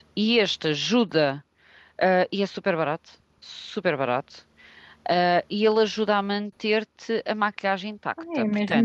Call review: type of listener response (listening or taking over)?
taking over